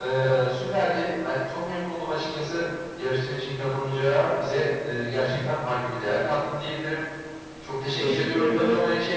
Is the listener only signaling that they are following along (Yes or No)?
Yes